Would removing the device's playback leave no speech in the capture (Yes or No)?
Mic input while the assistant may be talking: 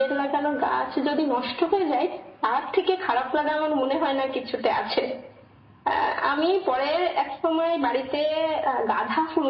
Yes